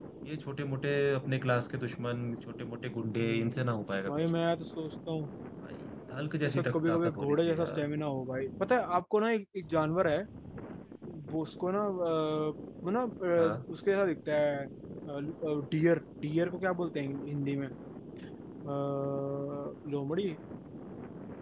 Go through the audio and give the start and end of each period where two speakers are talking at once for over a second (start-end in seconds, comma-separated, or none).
6.4-7.8